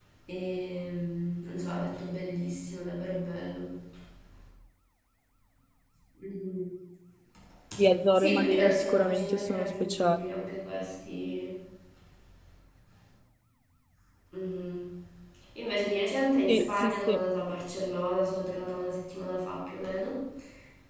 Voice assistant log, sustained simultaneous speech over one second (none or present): present